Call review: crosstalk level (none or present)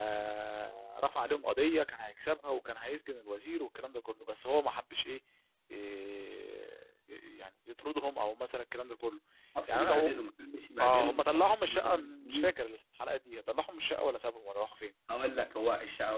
present